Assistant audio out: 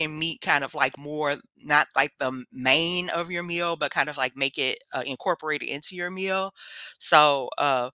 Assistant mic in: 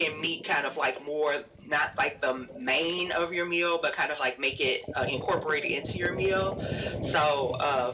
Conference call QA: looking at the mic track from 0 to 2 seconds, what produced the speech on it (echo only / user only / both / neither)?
echo only